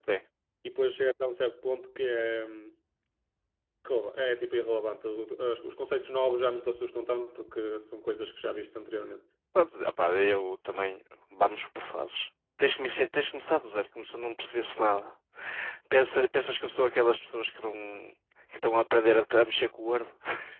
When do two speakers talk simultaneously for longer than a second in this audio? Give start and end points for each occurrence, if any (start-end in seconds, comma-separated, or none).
none